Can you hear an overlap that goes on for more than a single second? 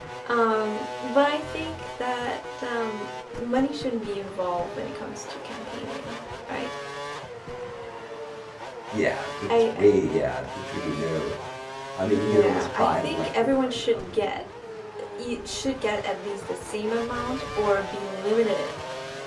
Yes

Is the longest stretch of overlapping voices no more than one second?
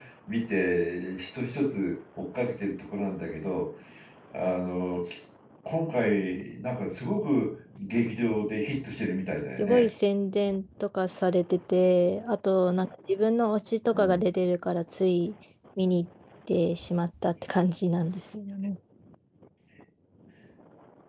Yes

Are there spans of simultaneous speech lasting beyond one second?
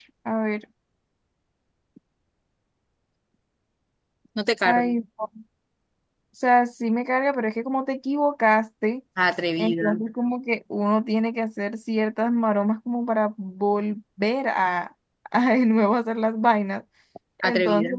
No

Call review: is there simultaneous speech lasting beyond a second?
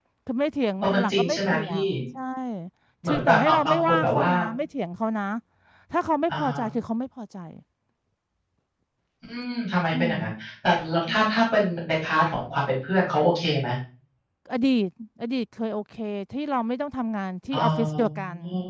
Yes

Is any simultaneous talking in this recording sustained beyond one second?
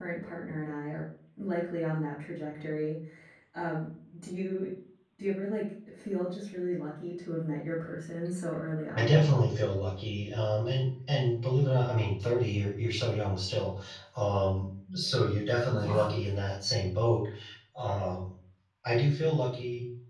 No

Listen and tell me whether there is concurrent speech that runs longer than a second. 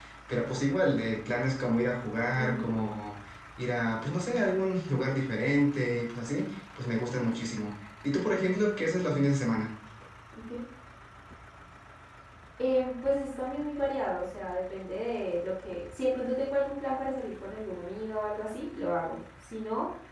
No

